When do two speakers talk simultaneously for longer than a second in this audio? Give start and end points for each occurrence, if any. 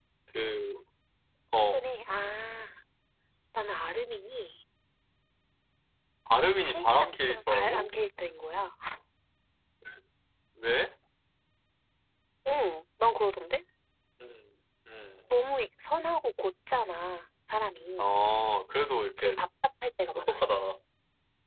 6.5-7.9

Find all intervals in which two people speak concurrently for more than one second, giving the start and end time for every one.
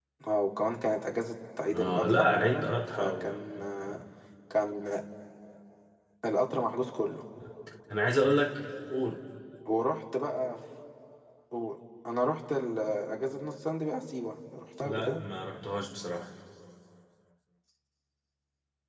1.7-3.4

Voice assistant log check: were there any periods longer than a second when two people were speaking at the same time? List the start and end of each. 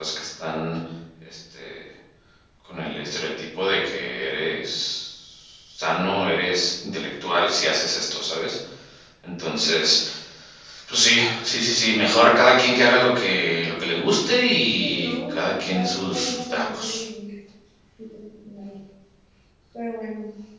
14.8-16.9

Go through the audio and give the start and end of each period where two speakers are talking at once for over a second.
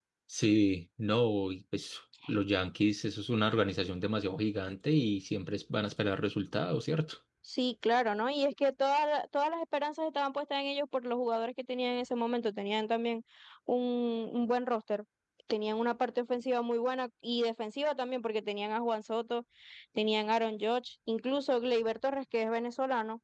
none

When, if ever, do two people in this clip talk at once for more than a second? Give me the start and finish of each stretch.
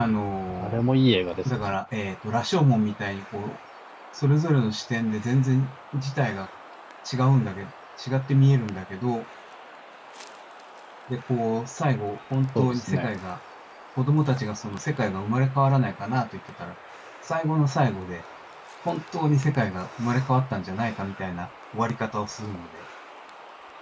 none

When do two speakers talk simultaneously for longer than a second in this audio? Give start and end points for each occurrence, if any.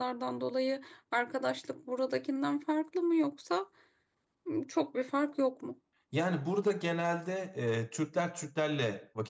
none

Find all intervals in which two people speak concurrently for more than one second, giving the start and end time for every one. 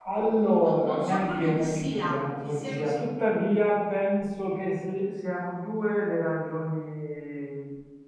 0.6-3.0

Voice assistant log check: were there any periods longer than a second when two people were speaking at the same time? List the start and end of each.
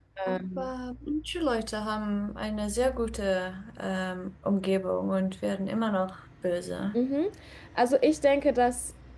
none

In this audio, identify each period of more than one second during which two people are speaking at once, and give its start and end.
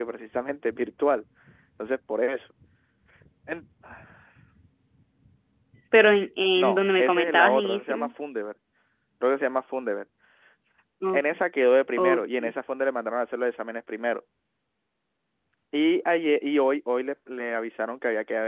6.6-8.1

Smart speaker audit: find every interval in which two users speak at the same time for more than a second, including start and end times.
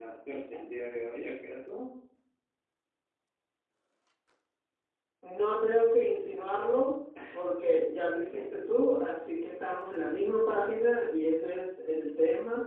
none

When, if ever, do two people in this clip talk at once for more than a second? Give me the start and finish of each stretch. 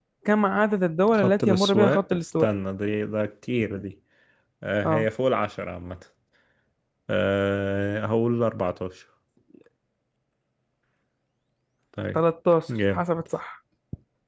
1.1-2.5

